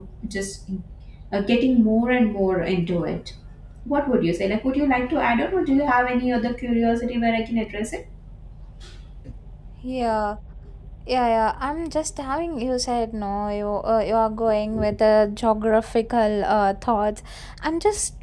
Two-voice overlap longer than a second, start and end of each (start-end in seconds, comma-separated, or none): none